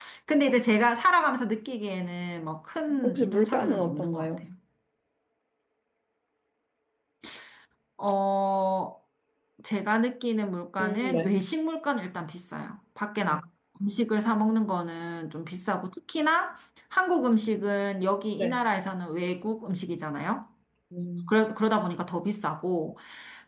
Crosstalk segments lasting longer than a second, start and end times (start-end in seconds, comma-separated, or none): 3.0-4.4